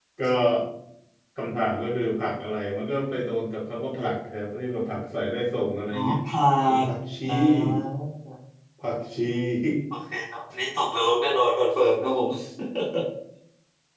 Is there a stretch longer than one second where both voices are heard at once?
No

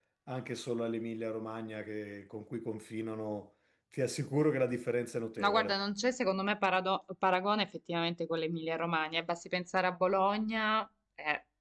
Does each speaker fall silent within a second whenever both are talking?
Yes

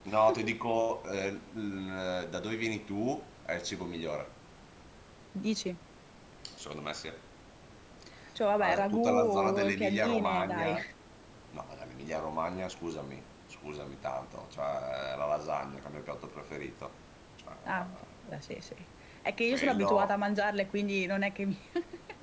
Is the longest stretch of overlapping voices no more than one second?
No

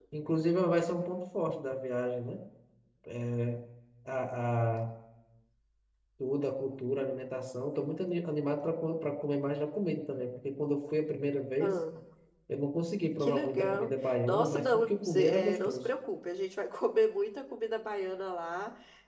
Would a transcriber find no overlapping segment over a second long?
No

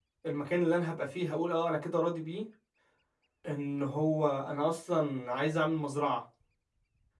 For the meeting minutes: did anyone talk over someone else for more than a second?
No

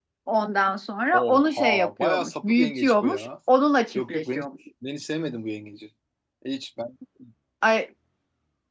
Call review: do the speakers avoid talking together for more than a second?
No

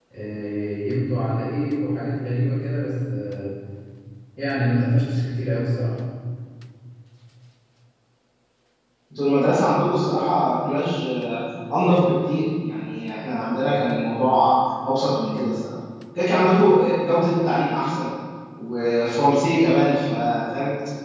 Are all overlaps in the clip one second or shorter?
Yes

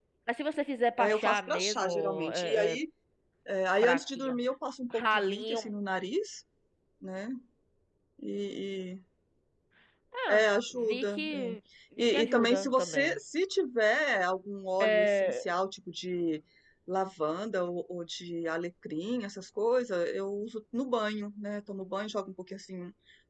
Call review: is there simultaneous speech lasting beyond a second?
Yes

